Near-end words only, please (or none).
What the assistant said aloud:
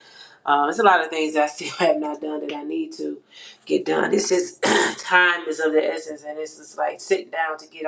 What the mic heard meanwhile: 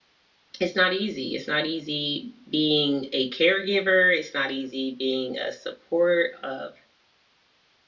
it's not easy it's not easy being a caregiver it's not easy being a support a